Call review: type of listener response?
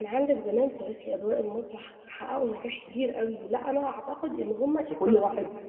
taking over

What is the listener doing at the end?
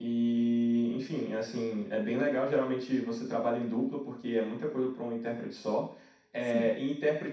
listening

